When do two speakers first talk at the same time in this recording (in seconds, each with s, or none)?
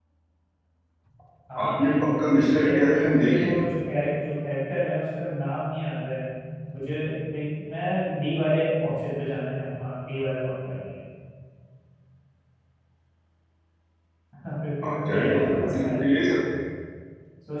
1.6 s